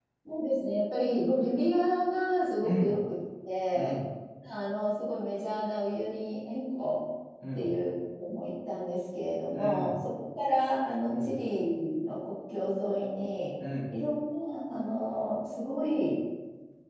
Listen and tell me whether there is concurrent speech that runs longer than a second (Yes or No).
No